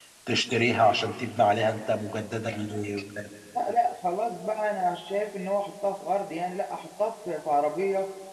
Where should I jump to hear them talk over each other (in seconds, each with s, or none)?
none